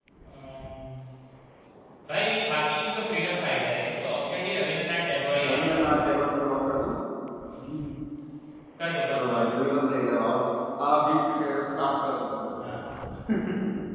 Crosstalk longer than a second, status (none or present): none